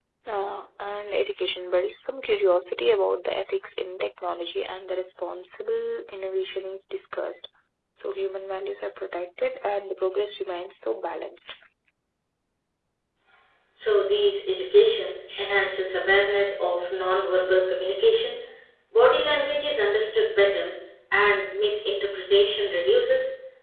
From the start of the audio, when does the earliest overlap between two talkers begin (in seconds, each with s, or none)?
none